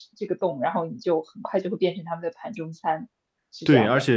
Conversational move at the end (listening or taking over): taking over